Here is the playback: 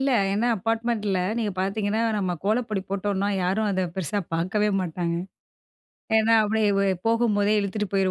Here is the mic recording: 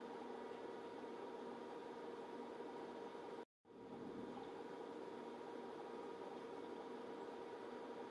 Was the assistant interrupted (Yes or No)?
No